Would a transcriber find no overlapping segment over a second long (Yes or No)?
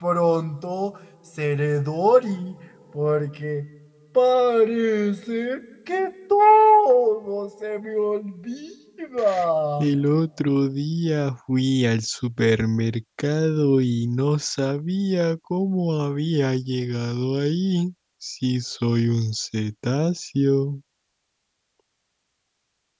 Yes